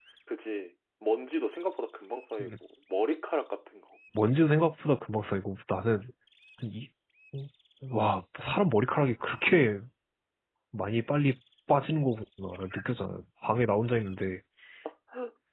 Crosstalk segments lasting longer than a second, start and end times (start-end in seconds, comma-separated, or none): none